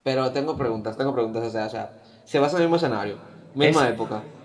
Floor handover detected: Yes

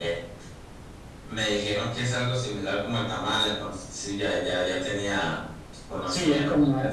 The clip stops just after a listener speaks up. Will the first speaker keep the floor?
No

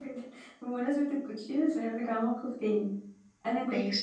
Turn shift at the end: No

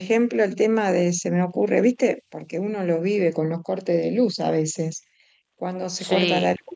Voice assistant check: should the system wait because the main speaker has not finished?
Yes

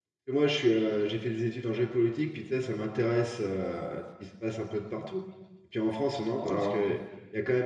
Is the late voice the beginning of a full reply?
No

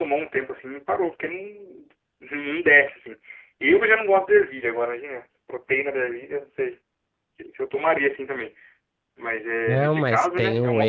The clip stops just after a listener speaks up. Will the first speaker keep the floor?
No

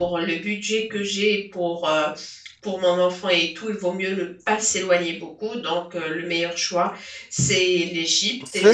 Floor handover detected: Yes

